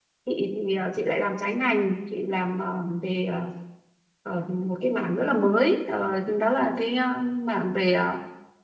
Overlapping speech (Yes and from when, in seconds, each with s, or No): No